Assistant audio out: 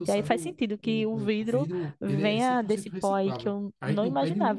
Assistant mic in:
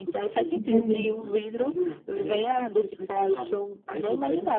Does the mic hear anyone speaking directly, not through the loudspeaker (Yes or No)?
Yes